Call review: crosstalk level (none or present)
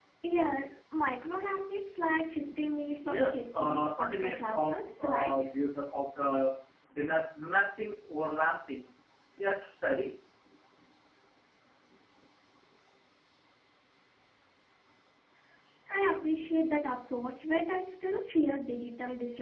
present